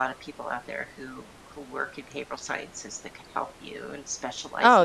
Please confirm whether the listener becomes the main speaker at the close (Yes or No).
Yes